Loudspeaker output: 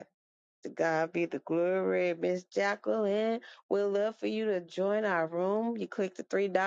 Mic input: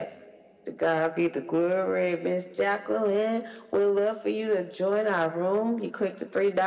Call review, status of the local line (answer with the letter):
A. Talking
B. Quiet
B